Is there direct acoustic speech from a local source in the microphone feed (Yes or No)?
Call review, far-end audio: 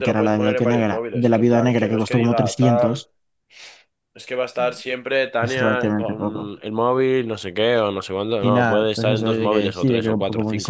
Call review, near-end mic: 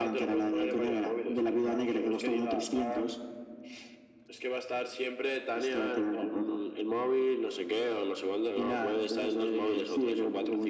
No